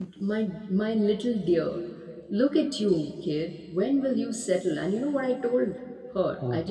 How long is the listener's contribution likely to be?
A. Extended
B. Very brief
B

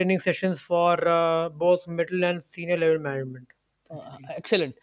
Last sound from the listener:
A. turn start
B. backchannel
A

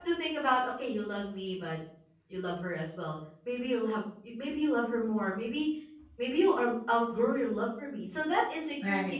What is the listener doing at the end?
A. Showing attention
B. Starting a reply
A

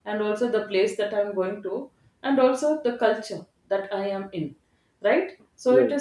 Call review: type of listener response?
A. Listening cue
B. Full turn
A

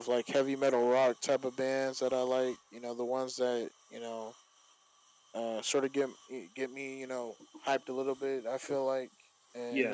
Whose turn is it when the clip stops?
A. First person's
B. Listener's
A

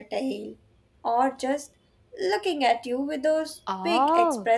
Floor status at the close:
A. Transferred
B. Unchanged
A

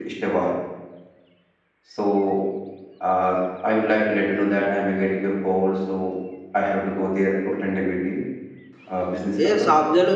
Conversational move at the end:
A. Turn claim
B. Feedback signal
A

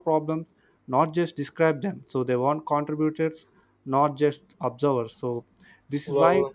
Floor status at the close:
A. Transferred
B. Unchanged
B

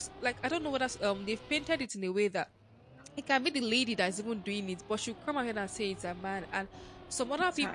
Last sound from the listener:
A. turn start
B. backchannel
B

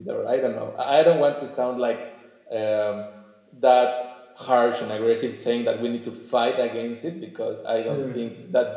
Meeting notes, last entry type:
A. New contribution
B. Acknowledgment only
B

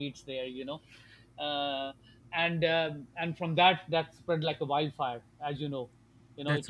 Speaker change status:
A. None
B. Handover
A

